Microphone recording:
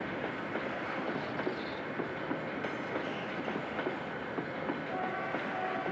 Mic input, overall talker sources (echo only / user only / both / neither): neither